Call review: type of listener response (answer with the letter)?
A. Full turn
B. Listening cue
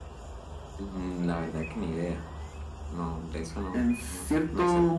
A